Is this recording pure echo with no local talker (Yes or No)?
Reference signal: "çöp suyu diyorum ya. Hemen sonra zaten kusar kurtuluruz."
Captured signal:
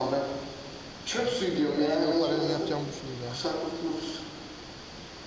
No